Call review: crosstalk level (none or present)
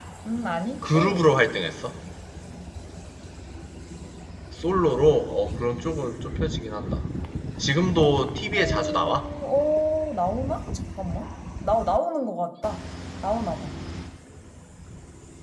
present